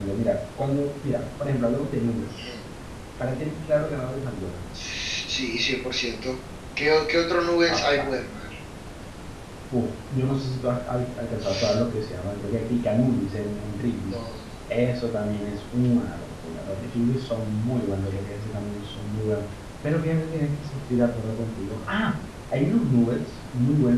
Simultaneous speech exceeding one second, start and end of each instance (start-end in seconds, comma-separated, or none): none